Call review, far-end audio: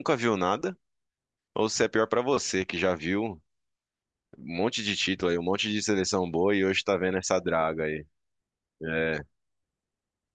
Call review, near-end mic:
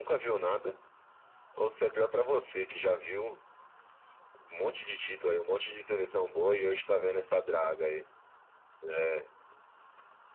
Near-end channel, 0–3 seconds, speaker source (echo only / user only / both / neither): echo only